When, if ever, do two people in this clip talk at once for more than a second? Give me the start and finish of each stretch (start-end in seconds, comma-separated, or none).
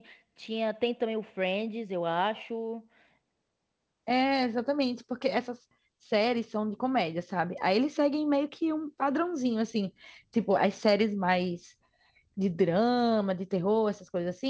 none